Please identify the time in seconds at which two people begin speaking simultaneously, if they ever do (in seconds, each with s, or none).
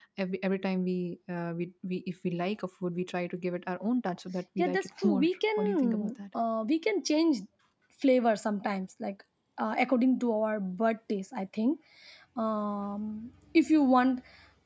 4.6 s